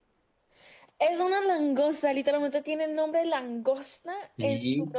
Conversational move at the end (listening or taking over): taking over